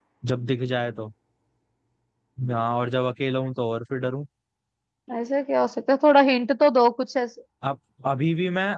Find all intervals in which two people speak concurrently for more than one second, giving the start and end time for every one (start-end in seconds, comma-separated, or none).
none